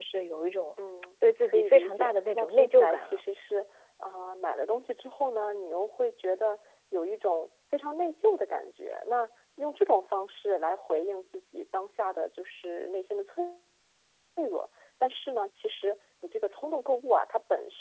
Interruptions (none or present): present